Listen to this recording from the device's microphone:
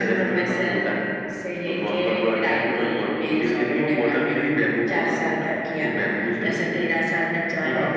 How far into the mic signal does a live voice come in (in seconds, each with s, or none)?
none